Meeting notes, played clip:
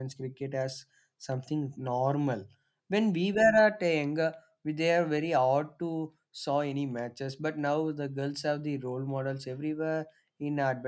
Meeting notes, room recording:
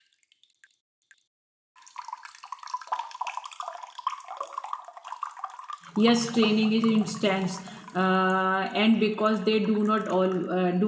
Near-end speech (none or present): present